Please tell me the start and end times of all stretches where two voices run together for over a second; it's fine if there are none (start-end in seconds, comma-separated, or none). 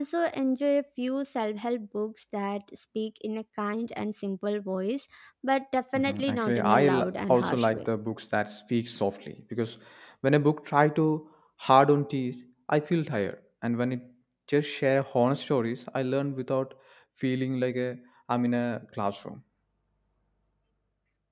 6.0-7.8